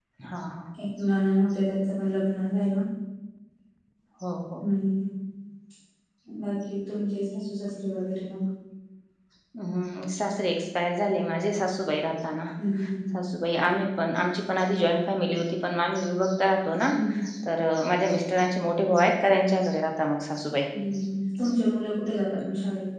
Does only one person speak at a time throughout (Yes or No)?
Yes